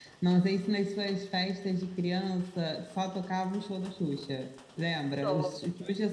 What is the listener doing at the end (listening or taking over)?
listening